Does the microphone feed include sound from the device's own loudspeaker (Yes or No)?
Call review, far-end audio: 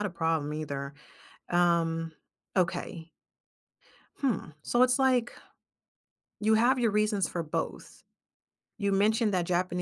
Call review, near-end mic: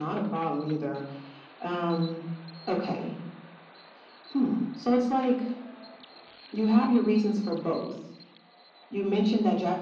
Yes